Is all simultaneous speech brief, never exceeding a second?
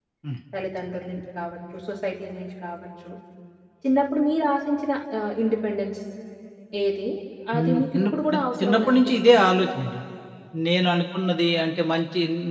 No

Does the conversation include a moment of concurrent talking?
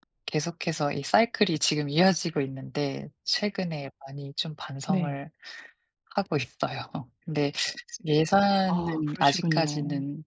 Yes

